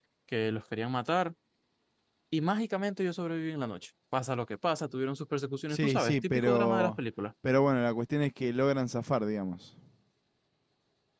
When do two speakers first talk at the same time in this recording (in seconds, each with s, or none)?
5.7 s